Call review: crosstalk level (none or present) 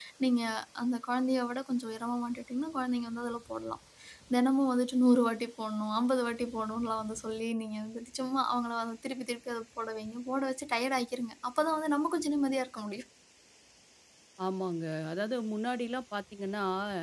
none